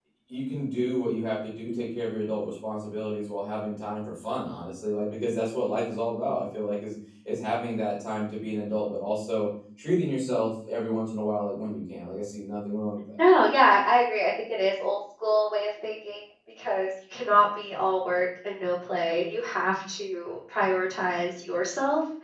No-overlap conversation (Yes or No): Yes